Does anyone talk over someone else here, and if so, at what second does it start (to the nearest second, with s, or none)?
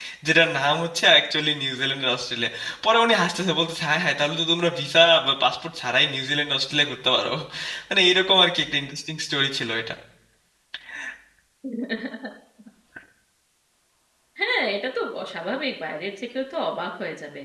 none